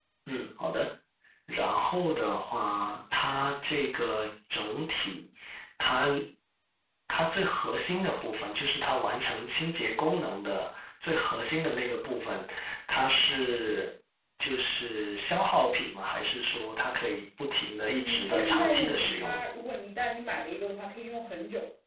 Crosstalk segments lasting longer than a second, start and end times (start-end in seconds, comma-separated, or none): 18.0-19.4